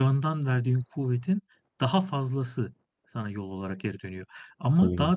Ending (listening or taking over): listening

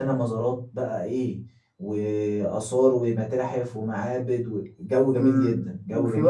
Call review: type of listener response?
taking over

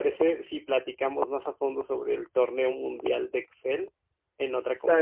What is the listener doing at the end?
taking over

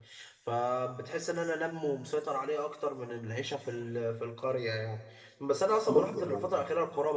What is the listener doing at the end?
listening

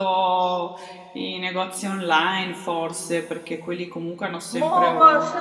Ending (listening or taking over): taking over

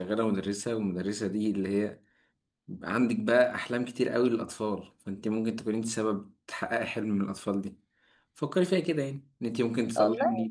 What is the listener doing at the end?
listening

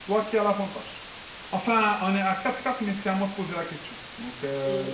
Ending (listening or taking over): taking over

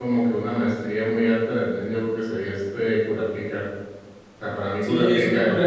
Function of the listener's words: taking over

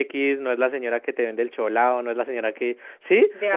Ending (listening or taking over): listening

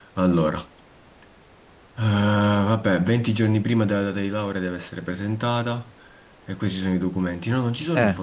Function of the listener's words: listening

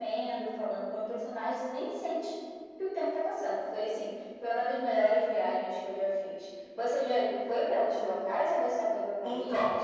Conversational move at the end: taking over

